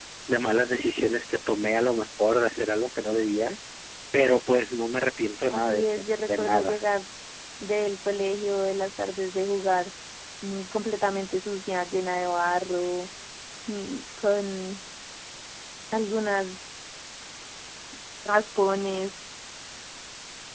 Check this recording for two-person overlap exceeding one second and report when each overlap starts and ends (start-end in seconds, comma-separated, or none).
5.5-6.8